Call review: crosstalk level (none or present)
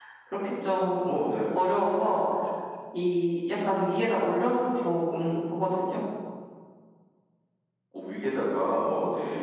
none